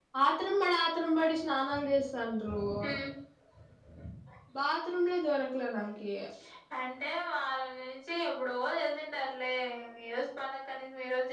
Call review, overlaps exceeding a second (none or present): none